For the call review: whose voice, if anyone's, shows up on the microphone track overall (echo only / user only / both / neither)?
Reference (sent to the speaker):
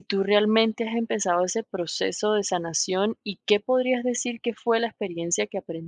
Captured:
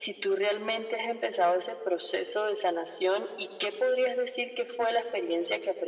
echo only